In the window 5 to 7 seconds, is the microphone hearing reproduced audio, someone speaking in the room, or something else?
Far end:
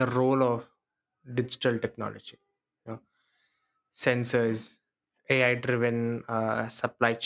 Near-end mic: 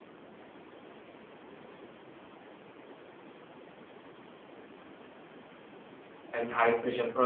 user only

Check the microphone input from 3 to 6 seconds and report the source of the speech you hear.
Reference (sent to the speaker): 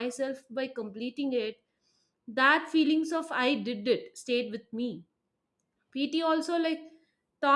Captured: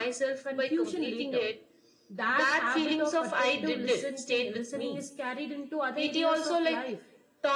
both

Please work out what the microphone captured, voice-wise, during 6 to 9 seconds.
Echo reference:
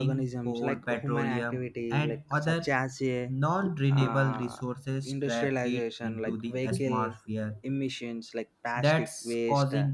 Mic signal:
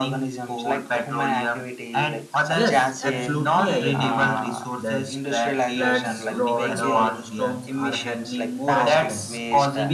both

